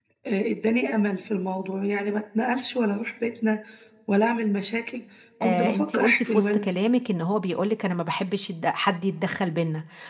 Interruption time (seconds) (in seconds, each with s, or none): 5.4 s